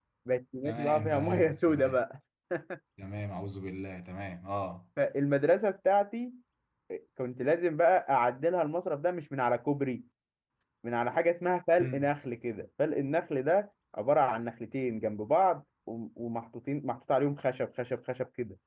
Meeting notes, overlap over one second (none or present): present